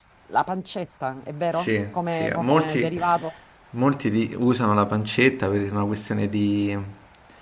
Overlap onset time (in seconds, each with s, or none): 1.5 s